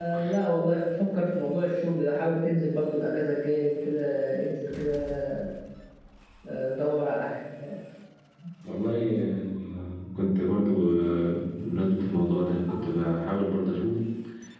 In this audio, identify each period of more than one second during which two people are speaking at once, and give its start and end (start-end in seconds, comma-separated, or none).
none